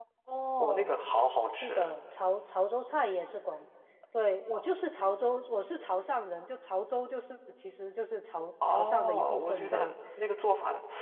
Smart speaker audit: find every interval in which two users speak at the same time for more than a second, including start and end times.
8.7-9.9

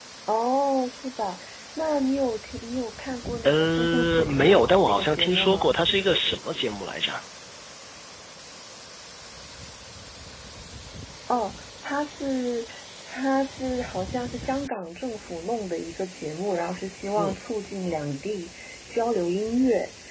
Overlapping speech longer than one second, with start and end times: 3.4-5.8

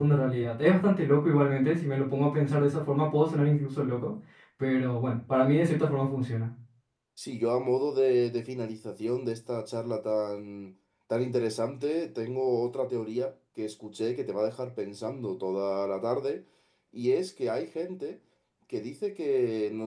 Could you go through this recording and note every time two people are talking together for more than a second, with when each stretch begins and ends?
none

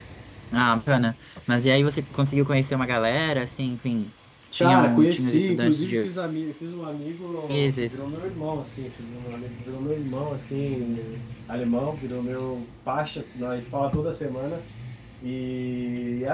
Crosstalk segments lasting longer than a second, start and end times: 4.6-6.1

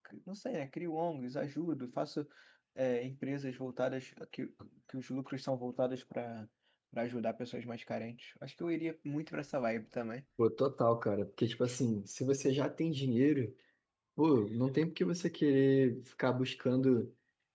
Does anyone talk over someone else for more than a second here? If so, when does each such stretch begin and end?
none

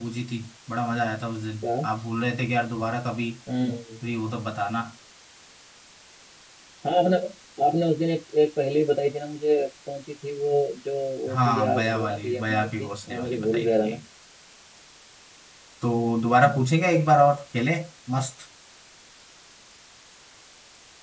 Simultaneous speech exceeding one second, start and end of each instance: 11.3-14.0

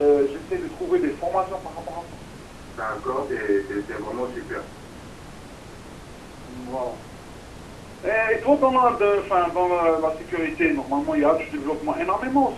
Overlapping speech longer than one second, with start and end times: none

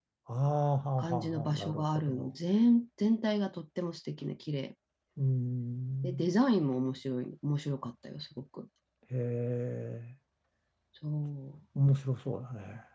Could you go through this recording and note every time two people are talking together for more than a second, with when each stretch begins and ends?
1.0-2.3

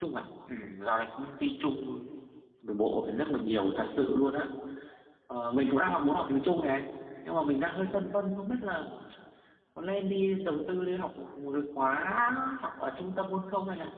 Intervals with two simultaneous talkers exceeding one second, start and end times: none

